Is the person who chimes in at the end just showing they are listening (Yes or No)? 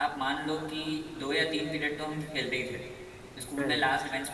Yes